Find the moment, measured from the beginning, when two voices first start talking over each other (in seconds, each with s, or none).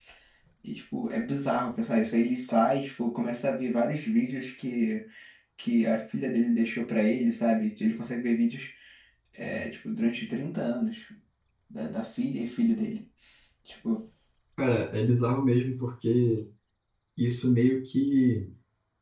none